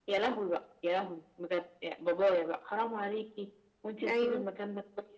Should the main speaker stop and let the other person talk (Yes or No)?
No